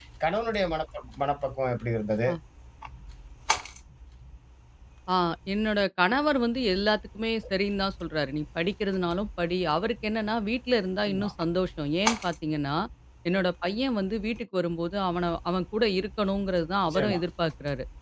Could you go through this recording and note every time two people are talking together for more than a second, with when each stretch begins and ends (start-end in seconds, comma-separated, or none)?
none